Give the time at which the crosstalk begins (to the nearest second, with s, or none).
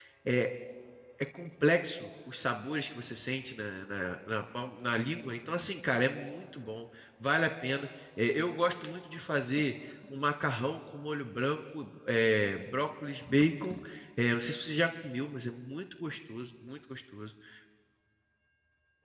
none